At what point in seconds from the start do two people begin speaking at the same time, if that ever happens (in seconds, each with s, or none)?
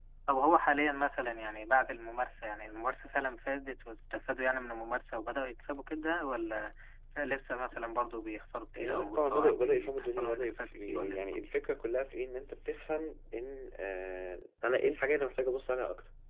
8.8 s